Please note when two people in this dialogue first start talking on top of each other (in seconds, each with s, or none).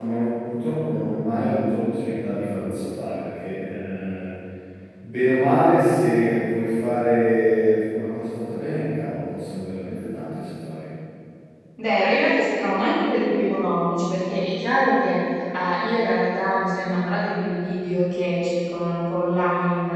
none